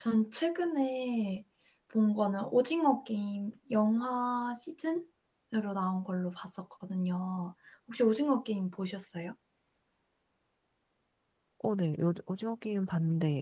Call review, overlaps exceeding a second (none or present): none